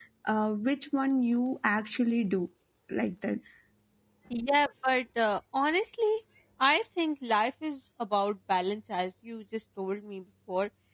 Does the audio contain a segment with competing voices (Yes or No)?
No